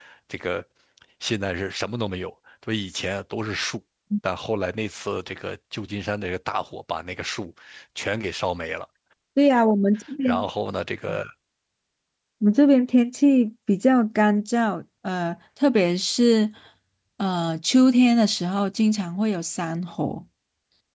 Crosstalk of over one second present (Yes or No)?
No